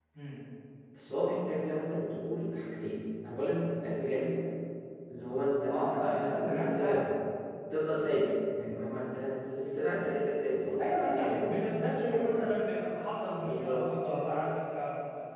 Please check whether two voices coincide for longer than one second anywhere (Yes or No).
Yes